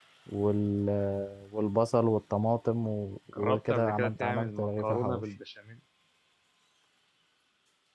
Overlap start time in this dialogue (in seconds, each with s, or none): 3.3 s